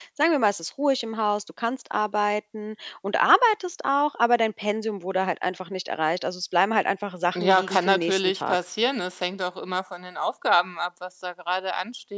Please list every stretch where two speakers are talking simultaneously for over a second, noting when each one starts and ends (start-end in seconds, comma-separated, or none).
7.3-8.6